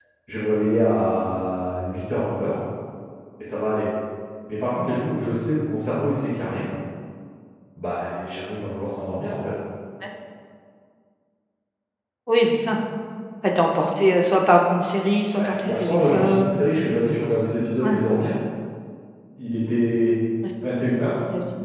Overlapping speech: Yes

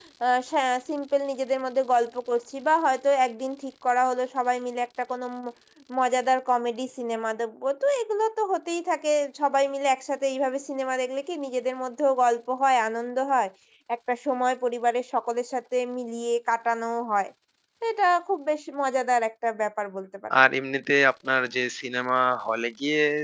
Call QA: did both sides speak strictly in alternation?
Yes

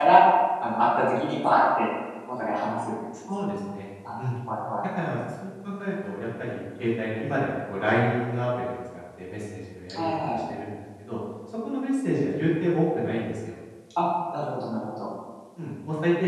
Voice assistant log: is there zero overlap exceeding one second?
Yes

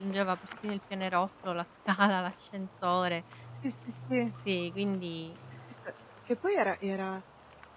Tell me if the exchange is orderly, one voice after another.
Yes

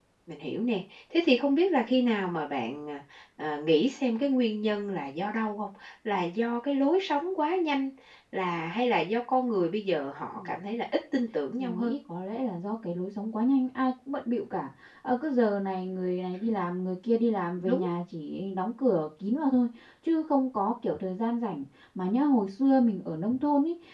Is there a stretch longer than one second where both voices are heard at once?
No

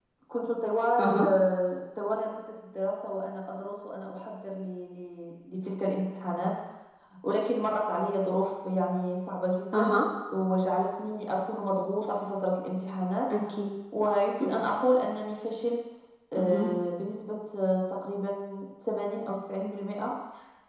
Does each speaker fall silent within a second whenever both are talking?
Yes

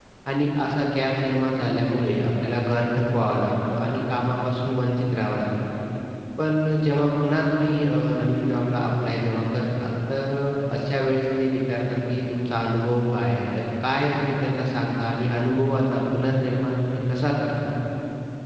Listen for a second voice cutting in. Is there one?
No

